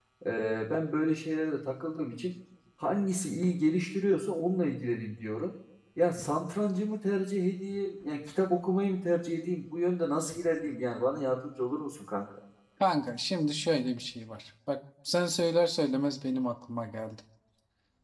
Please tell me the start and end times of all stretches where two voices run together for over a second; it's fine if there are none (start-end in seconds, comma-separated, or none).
none